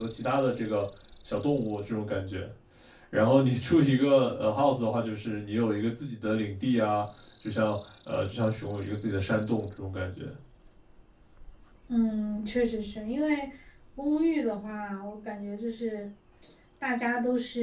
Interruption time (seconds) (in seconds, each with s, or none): none